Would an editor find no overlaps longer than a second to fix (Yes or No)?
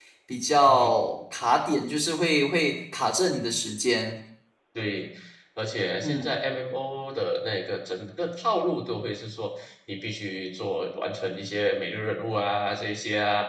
Yes